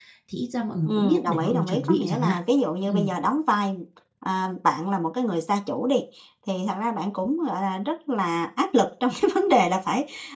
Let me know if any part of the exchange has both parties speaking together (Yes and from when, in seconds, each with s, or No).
Yes, from 0.8 s